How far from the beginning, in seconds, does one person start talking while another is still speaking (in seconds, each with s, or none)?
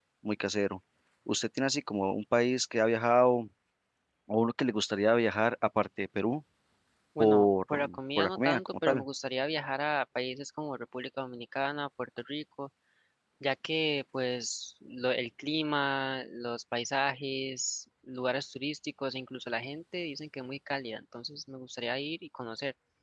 7.2 s